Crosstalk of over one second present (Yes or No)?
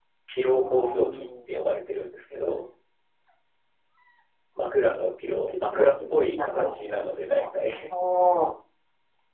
Yes